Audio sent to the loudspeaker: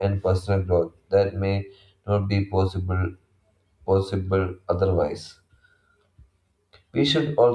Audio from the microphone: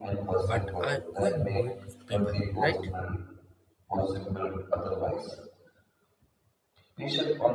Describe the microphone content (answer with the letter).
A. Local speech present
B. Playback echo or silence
A